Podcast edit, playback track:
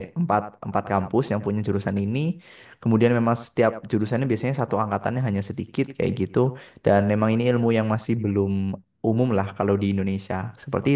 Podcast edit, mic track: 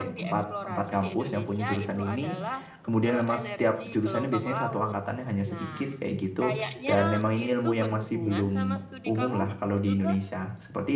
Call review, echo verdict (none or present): present